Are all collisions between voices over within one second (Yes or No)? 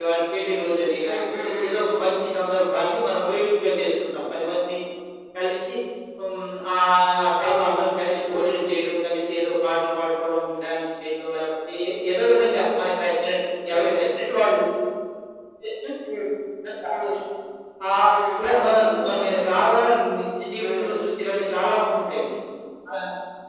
No